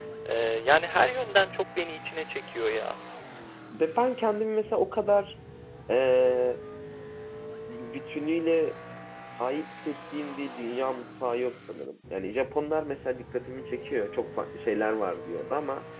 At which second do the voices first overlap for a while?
none

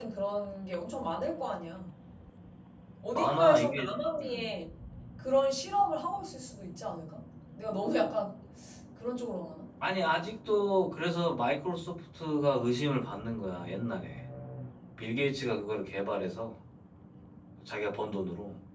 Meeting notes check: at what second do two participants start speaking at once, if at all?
3 s

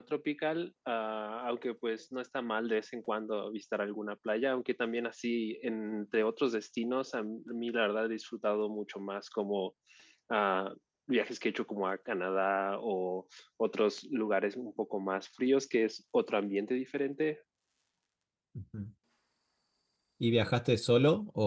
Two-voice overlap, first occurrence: none

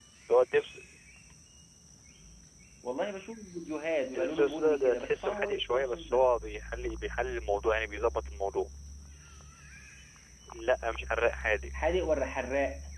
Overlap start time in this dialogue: 4 s

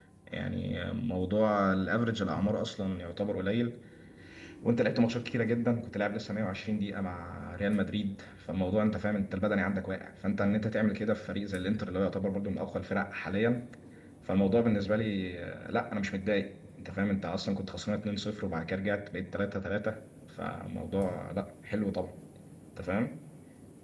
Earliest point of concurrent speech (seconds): none

